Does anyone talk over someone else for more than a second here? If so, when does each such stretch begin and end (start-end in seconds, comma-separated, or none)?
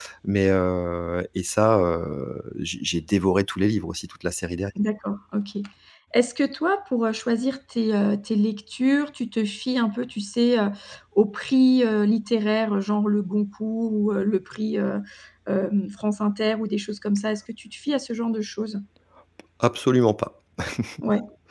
none